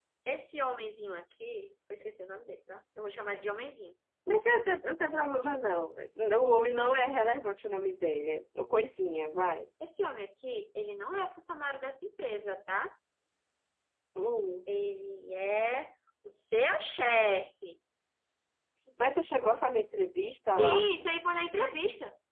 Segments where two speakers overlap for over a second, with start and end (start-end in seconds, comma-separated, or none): none